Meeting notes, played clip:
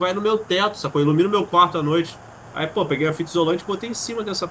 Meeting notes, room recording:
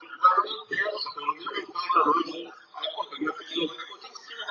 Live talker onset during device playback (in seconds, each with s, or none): none